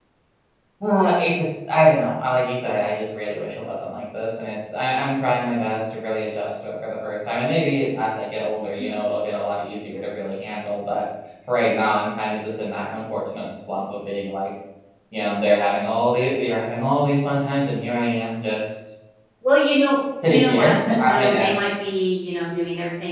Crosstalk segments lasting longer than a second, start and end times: 20.3-21.7

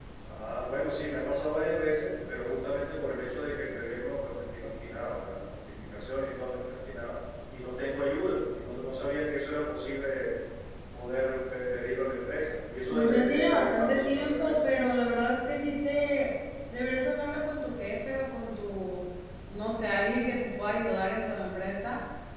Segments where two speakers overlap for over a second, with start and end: 12.9-14.6

